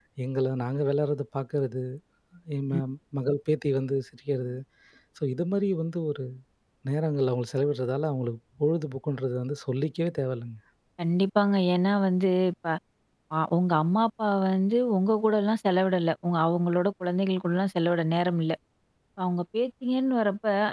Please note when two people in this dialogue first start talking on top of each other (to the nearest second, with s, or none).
none